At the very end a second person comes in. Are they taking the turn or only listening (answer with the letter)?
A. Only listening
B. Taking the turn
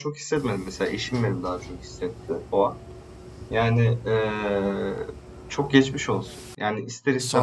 A